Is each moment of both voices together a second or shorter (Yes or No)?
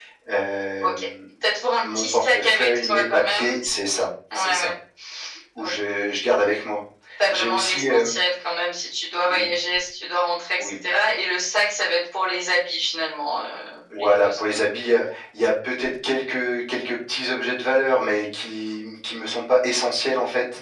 No